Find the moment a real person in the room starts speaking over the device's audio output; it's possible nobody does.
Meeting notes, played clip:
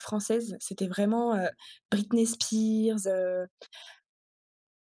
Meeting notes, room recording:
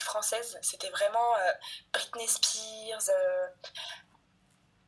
none

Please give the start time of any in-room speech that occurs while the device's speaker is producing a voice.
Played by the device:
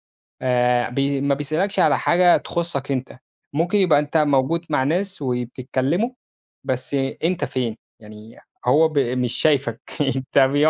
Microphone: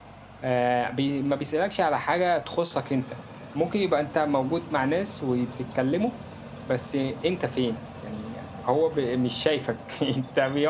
none

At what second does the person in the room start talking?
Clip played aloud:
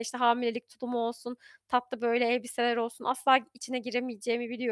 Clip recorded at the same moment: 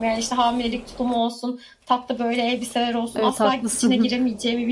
3 s

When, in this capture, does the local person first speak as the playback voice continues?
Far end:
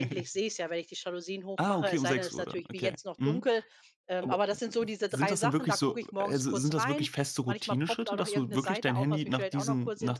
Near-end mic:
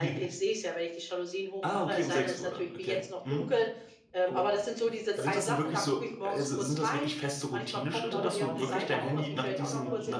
8 s

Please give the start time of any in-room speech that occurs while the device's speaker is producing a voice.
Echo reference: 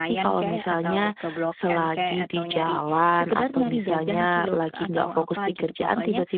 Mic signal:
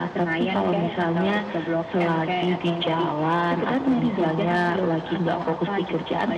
none

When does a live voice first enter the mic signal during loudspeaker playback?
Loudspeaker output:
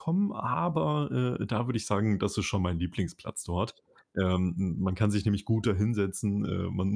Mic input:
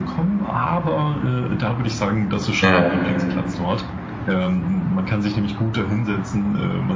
3 s

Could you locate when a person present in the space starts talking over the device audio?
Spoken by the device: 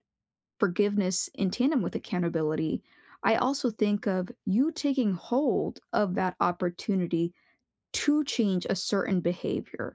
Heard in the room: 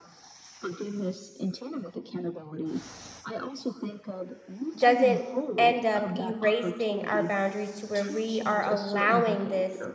5 s

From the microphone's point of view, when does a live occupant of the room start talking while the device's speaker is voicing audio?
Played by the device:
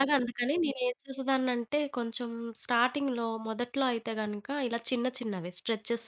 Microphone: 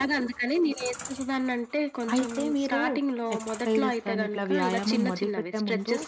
2 s

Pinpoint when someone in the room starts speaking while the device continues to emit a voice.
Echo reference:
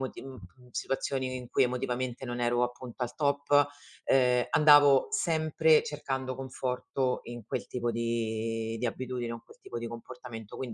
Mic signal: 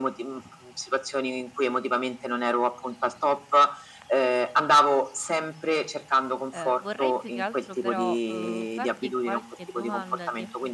6 s

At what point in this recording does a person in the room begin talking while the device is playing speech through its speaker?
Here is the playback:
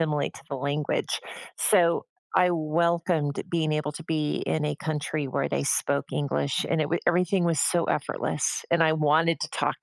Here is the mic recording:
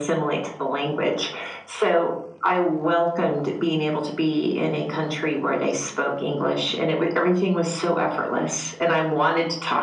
none

